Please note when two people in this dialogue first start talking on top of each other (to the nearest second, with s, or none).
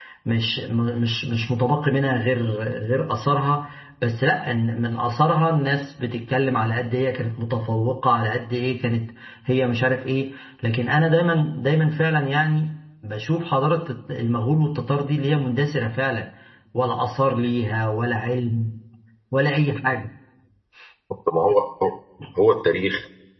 none